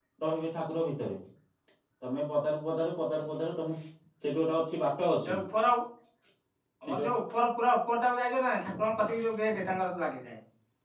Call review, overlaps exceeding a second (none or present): none